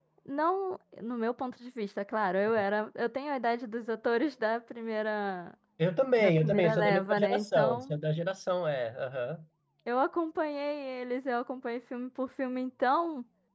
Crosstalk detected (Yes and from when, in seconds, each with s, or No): Yes, from 6.2 s